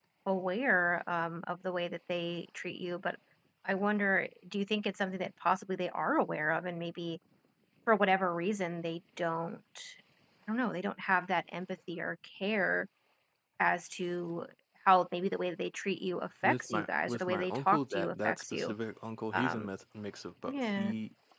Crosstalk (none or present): present